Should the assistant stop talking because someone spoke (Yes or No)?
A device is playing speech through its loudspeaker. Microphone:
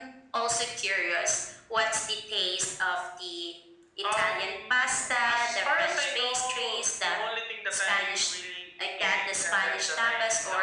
No